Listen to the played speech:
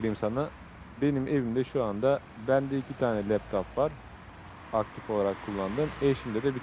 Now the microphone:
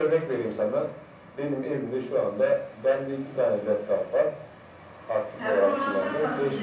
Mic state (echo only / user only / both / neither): both